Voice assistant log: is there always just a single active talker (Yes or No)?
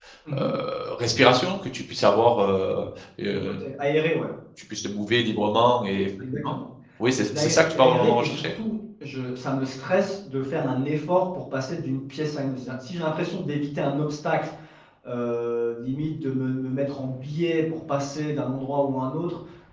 No